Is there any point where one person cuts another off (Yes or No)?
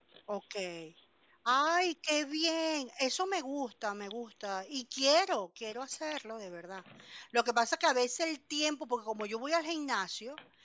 No